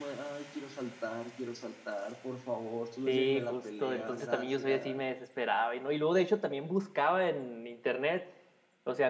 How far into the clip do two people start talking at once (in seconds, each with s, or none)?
3.1 s